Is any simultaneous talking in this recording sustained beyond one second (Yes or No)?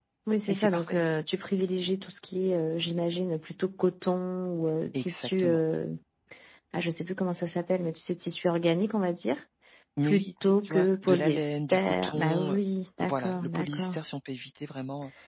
Yes